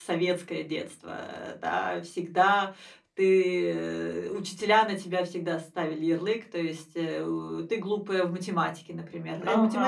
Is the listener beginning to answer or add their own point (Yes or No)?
No